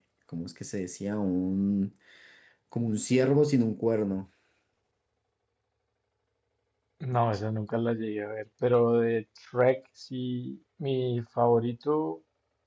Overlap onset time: none

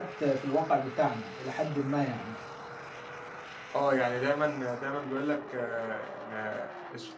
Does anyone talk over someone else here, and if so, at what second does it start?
none

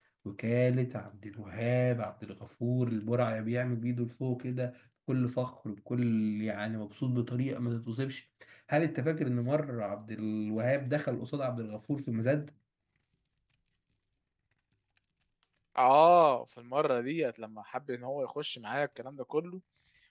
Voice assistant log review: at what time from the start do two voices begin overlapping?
none

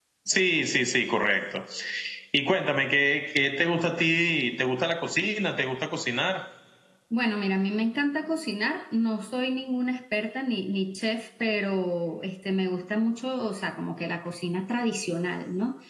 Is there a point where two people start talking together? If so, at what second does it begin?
none

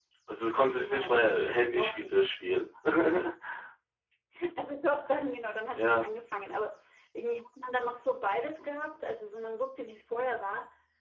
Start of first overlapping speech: 0.8 s

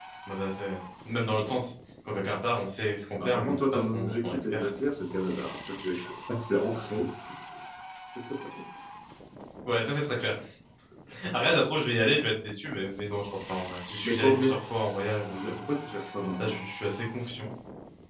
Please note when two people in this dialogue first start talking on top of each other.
3.2 s

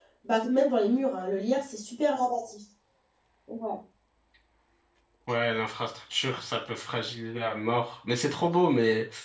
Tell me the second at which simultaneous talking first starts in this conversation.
none

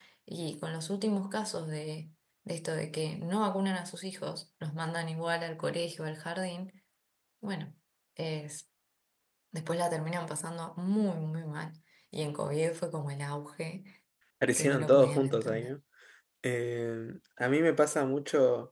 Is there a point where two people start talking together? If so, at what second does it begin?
14.5 s

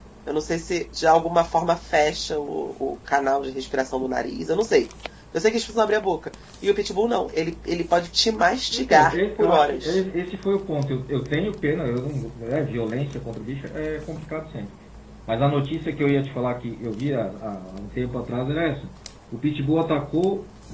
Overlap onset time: 8.7 s

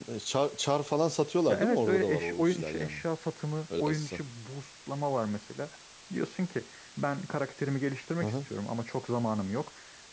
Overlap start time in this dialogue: 1.5 s

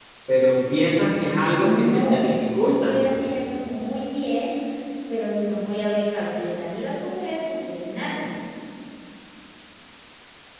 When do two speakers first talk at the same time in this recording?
1.6 s

